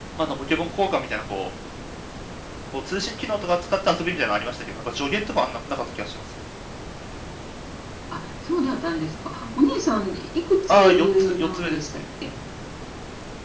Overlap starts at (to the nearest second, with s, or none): 11 s